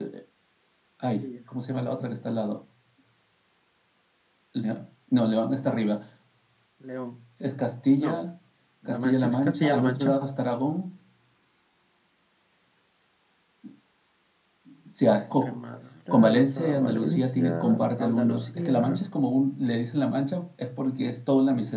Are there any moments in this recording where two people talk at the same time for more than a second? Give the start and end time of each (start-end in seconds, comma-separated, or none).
8.9-10.1, 16.1-18.9